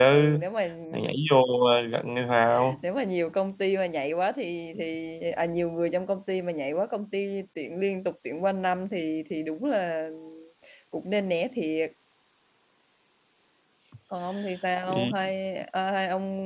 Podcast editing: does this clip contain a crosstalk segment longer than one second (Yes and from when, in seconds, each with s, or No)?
No